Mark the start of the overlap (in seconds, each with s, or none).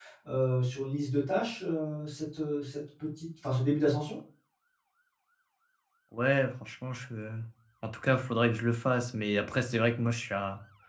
none